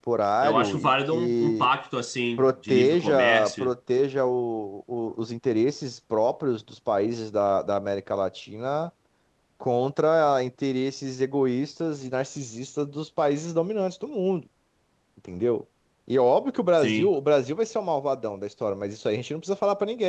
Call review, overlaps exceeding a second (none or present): present